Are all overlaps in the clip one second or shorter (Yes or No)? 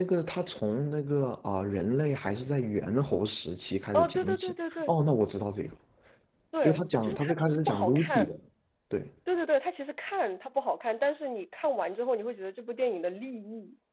No